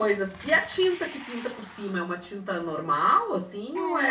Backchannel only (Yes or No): No